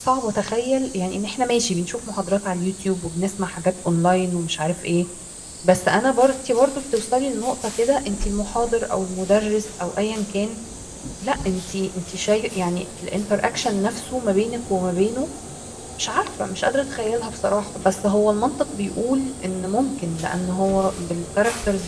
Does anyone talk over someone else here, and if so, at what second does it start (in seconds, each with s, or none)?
none